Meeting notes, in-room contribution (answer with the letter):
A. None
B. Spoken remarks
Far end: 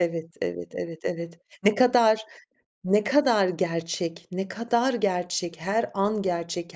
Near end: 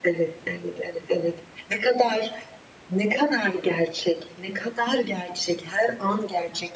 A